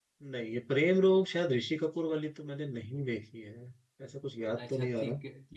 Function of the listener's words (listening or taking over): taking over